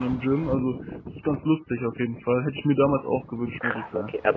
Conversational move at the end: taking over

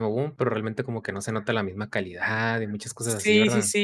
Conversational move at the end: taking over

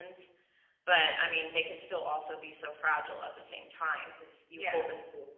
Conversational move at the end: listening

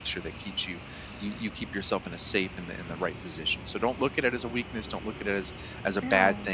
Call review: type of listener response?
listening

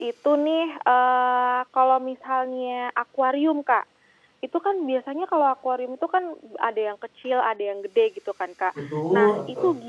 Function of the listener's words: listening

